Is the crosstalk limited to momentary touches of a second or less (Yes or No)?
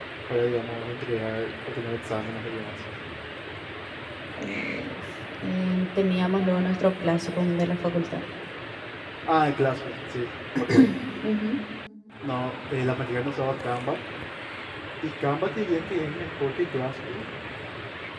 Yes